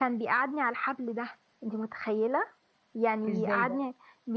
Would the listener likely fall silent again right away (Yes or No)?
Yes